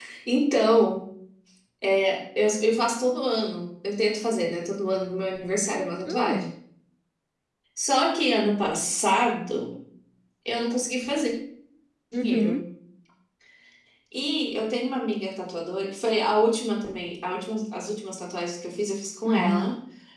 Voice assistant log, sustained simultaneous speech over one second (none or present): none